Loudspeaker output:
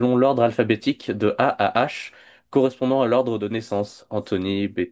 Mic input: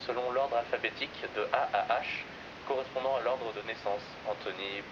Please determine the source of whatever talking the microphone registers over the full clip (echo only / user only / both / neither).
echo only